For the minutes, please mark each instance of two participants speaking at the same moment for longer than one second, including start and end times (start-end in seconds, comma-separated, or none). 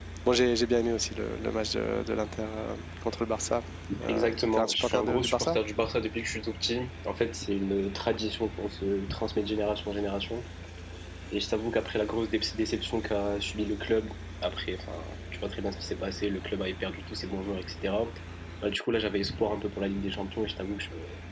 4.1-5.6